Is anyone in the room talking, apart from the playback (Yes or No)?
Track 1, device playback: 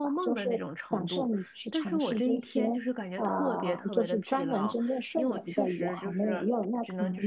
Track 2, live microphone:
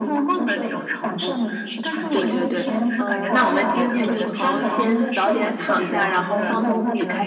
Yes